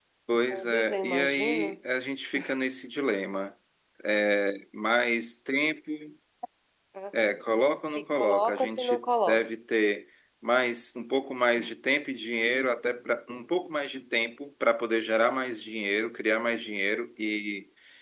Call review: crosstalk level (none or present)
present